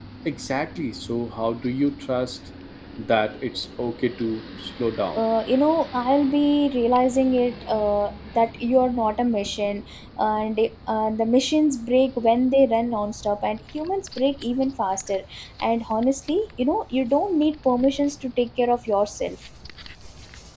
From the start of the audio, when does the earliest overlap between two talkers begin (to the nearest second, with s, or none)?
none